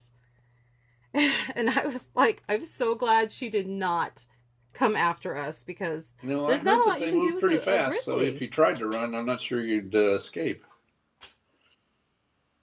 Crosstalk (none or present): present